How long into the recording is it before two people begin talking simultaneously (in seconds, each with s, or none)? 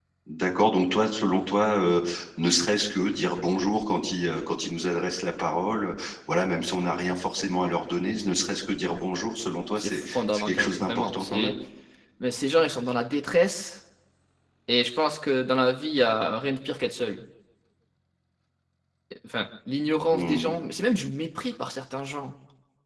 9.8 s